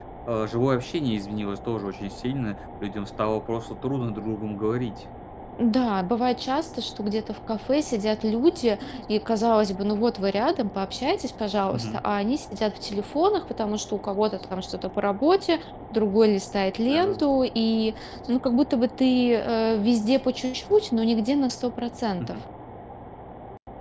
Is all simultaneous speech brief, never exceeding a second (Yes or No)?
Yes